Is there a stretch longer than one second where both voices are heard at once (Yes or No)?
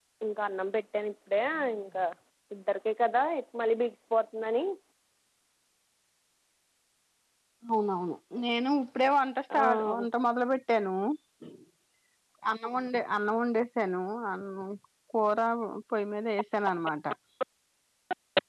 No